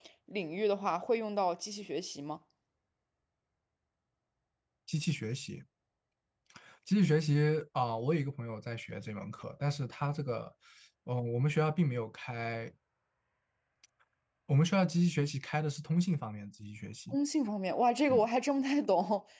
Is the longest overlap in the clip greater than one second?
No

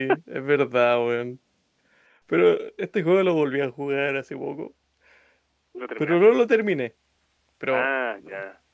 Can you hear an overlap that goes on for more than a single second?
No

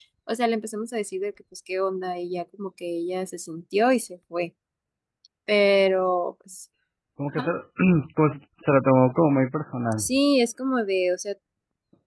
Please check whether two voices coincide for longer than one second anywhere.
No

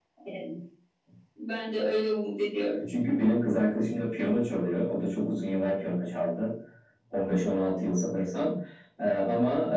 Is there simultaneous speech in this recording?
No

